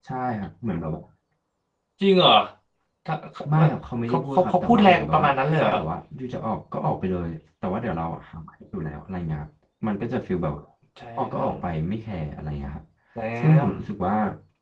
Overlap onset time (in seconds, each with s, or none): 4.1 s